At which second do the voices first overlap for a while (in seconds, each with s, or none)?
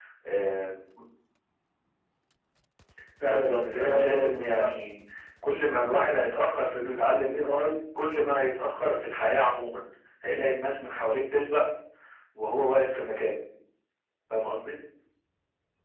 3.2 s